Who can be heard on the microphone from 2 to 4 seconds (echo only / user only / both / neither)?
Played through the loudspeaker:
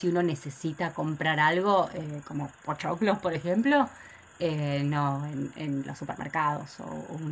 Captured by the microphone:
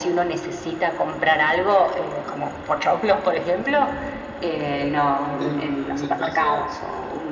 echo only